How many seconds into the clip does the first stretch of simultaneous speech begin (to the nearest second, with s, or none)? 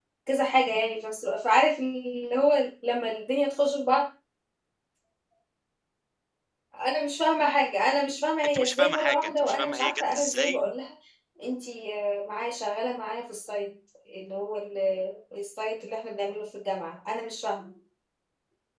8 s